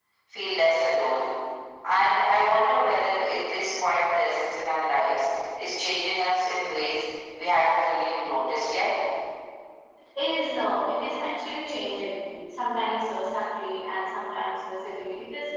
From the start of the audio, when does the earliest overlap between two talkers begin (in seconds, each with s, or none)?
none